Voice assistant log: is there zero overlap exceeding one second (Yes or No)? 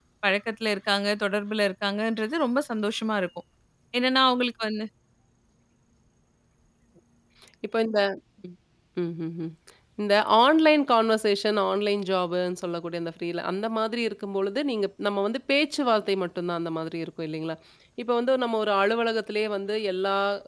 Yes